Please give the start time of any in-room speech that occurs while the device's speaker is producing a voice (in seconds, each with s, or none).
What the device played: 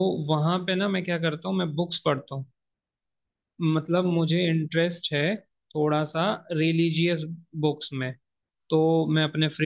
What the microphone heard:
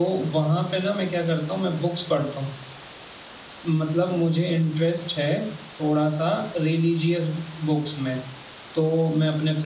none